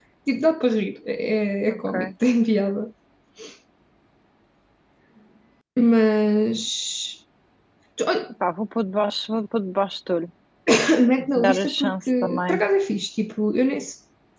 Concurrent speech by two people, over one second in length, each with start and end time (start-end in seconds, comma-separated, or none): 11.4-12.6